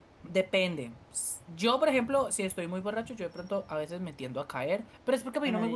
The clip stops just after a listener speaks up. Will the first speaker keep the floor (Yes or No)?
Yes